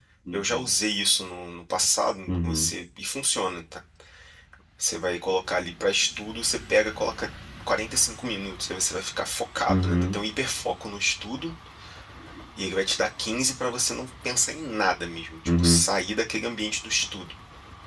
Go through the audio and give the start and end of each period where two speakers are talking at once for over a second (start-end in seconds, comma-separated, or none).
none